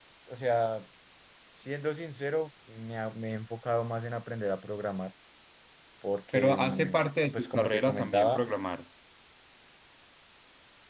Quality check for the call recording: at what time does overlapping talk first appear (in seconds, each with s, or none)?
6.3 s